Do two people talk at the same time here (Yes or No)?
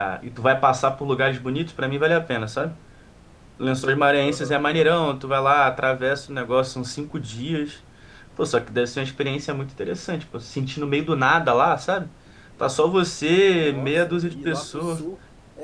Yes